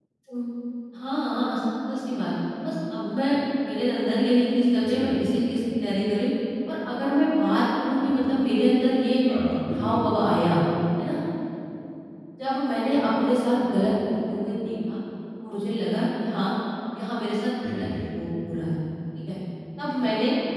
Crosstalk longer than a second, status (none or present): none